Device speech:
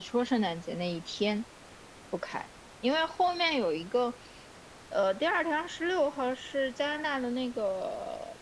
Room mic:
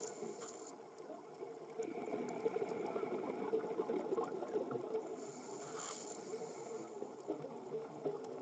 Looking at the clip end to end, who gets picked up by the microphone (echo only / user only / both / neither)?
neither